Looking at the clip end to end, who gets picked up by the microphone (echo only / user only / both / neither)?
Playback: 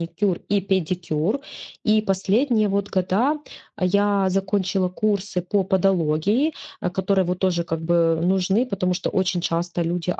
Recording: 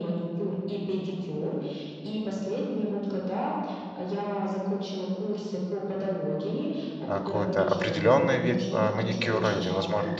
both